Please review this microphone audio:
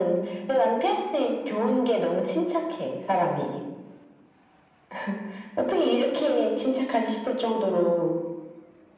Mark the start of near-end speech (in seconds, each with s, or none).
none